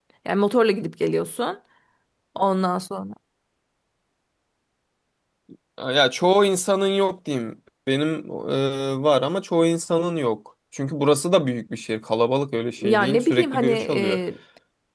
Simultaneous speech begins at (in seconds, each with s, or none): 12.8 s